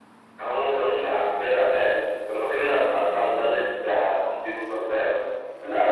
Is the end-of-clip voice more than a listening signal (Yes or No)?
No